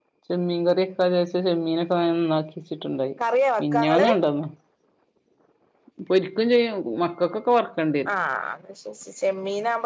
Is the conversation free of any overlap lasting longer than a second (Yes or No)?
Yes